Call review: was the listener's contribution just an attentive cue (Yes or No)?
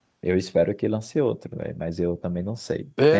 Yes